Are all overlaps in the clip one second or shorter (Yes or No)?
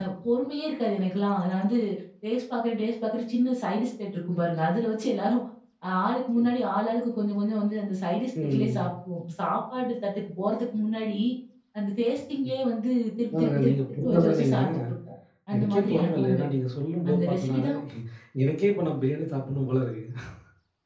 No